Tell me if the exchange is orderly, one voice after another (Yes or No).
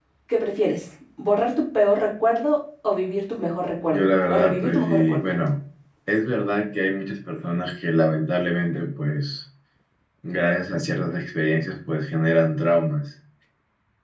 No